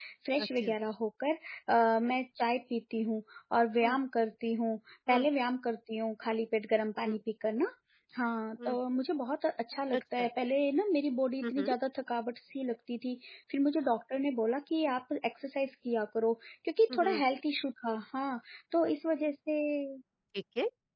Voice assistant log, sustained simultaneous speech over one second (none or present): none